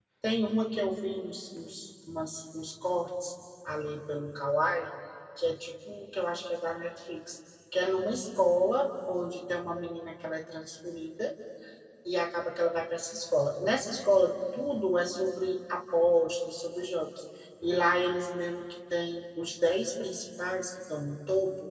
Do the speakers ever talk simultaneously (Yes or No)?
No